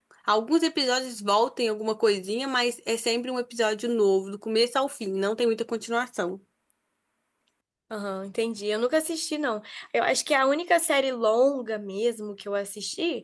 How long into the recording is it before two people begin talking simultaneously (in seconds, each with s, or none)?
none